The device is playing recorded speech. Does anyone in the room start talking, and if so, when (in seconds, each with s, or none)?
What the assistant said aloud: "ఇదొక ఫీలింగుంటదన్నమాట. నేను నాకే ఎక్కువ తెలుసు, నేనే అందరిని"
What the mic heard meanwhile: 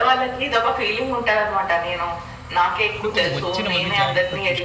3.0 s